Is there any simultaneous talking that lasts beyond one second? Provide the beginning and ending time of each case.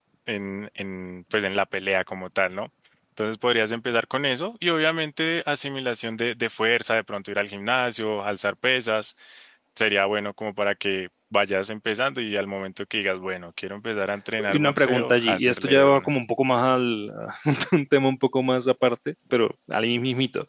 14.5-16.1

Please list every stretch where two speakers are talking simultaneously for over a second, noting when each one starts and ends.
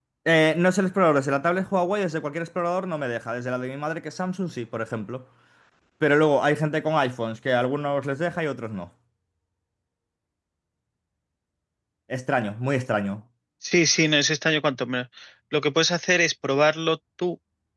none

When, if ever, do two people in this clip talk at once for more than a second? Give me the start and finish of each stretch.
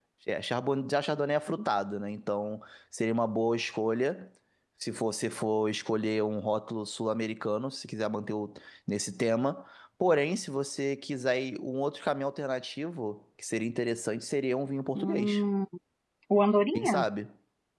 none

